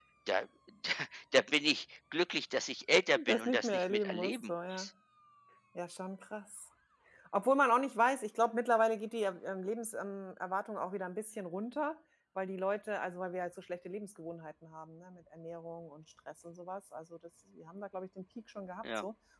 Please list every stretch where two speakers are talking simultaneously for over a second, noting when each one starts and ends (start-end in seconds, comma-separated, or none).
3.2-4.8